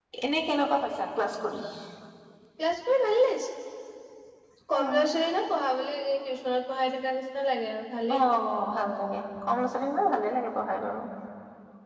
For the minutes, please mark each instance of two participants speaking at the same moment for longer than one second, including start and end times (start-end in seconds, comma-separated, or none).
none